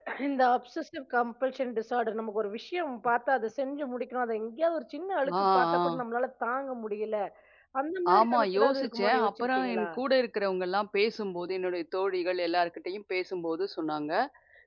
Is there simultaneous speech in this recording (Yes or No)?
Yes